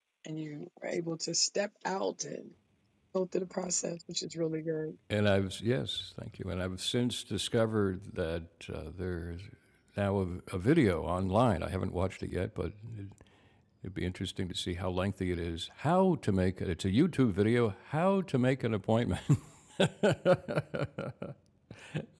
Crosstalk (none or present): none